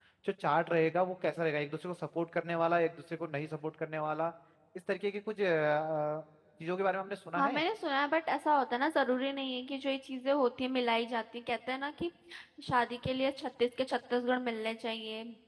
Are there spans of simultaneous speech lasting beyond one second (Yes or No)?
No